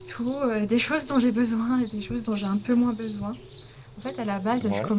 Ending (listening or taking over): listening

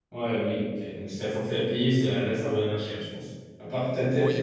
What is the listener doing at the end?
taking over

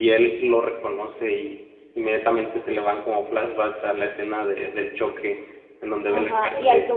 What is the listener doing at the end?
taking over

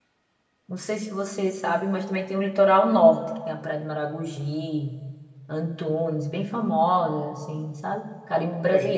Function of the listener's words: taking over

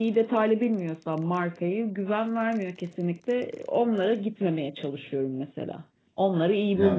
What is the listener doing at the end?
taking over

